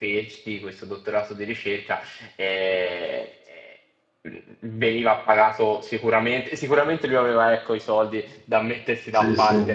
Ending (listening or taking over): listening